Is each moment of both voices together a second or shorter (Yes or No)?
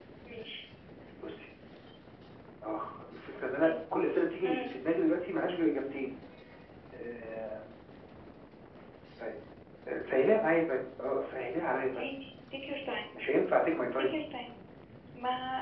Yes